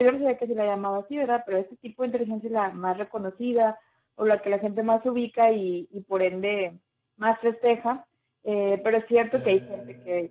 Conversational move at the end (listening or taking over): listening